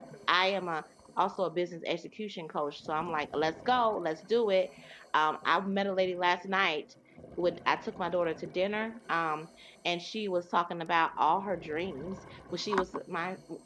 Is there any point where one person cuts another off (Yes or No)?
No